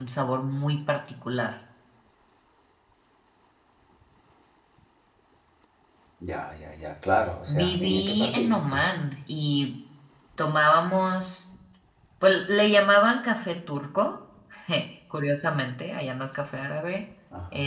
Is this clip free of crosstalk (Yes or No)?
No